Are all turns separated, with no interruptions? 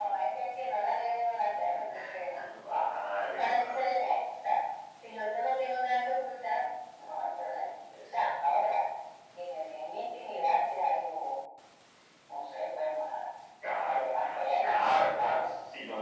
No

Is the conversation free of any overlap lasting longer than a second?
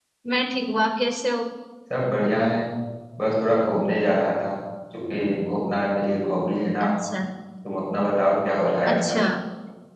Yes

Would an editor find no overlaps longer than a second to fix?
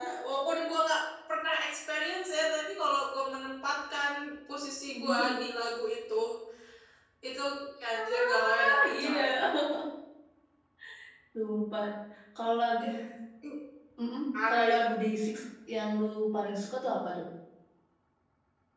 No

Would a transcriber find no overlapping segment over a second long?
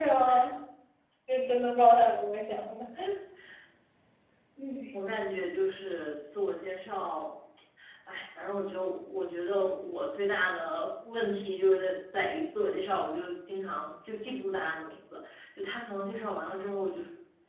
Yes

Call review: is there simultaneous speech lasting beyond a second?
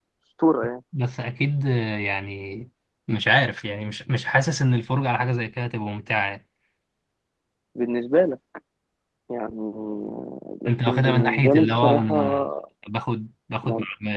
Yes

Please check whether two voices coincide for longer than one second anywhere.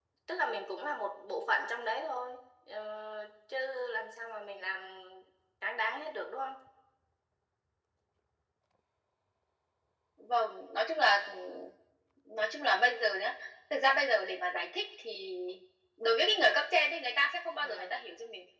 No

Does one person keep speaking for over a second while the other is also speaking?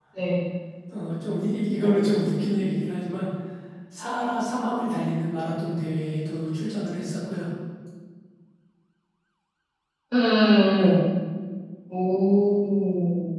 No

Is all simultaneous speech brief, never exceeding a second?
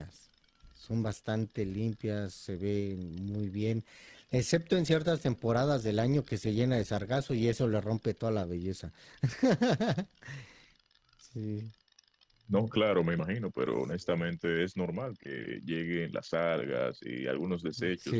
Yes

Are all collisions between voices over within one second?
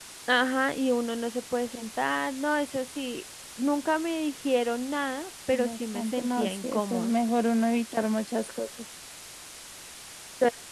No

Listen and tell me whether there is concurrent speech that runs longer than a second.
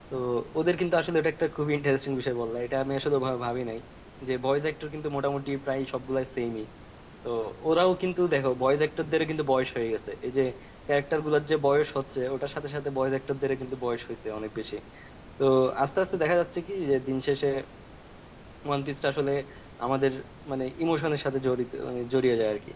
No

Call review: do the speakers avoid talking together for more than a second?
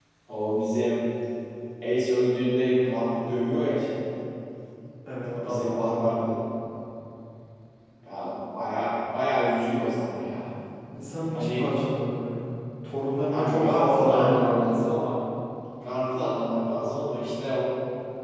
No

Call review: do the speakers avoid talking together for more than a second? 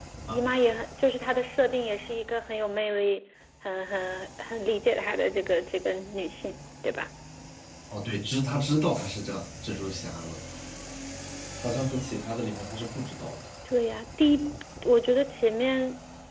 Yes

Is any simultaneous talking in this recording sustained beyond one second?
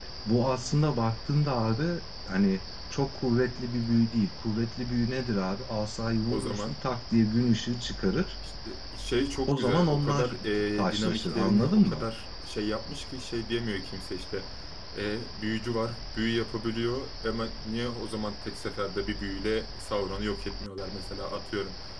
Yes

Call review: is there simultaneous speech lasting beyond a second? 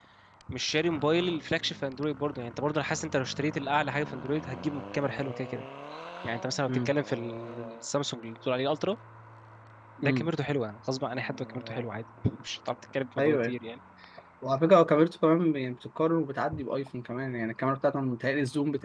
No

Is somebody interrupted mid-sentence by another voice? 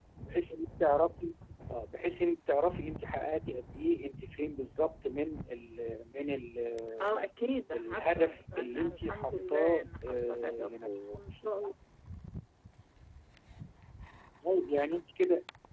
Yes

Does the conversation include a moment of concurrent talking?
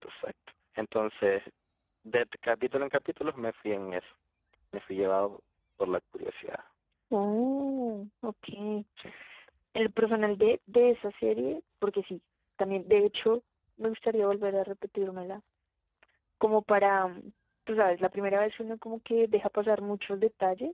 No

